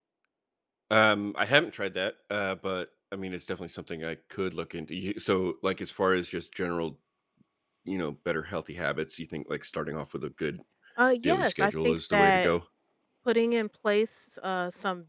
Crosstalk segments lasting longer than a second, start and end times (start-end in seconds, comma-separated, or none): 11.2-12.5